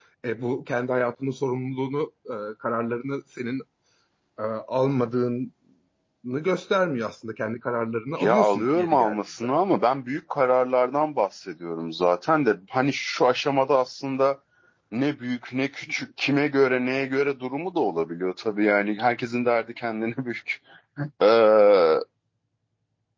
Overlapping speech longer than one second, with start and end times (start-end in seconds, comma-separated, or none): 8.2-9.4